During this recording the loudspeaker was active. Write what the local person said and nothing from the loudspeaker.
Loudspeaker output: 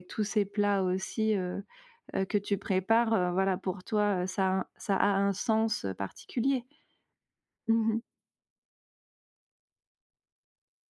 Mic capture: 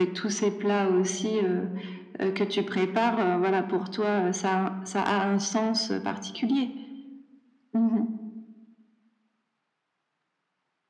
none

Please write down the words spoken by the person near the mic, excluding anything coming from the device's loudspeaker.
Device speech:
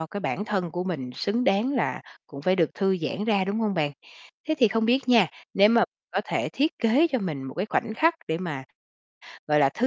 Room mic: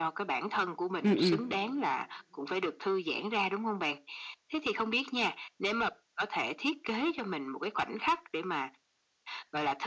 Ừm, ừm.

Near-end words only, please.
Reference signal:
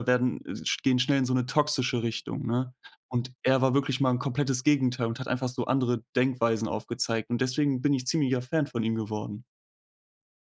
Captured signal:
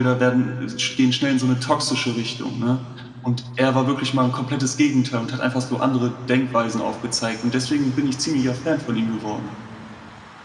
none

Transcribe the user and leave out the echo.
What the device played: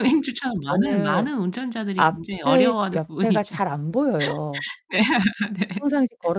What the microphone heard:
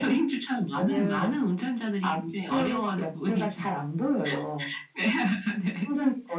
none

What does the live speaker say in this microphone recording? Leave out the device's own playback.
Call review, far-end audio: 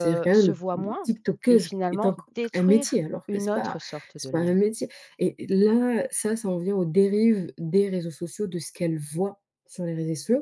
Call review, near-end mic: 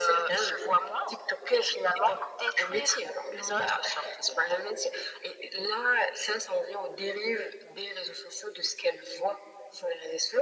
none

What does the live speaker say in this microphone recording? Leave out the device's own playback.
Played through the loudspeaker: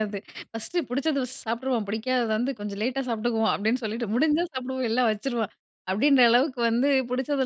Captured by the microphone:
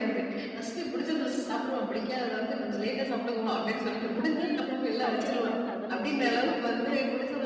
ஆமா, அந்த துவையலருந்து, பச்சடிலருந்து அதெல்லாம் ரொம்ப எதிர்ப்பாப்போம், இல்ல.

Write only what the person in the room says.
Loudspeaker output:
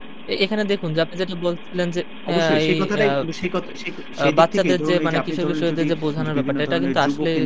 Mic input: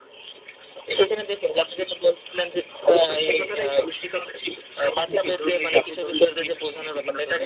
none

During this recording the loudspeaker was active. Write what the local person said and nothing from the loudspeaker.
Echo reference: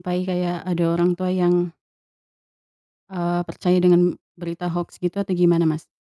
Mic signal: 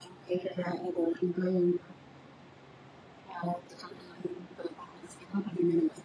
none

